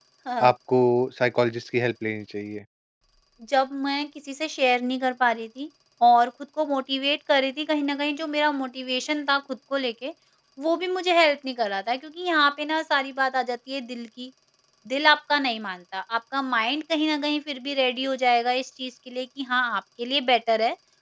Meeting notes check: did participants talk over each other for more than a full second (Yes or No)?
No